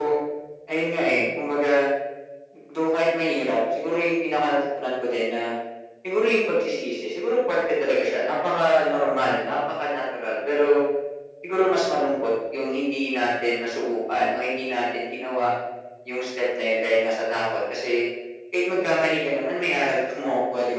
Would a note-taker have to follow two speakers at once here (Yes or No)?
No